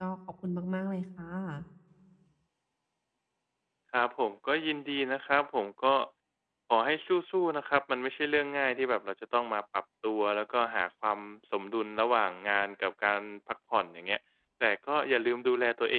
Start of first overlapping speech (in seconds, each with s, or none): none